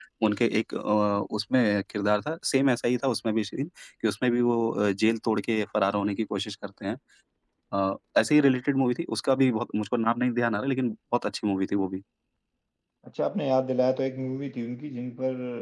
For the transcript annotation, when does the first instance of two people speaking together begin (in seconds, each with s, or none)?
none